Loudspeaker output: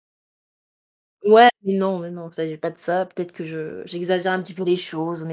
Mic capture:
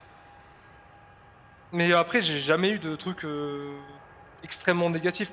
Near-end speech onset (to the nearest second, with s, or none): 2 s